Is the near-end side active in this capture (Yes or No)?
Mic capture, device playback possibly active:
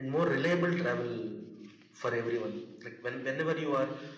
No